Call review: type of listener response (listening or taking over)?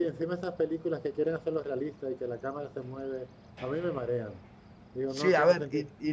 taking over